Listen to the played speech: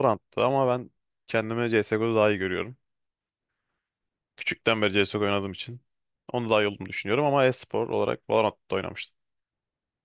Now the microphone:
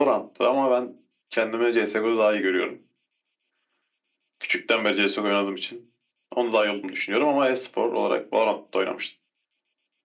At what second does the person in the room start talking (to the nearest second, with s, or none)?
none